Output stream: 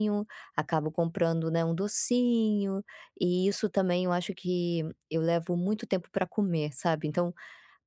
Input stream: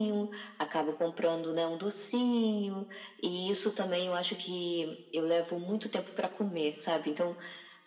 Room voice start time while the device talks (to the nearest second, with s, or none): none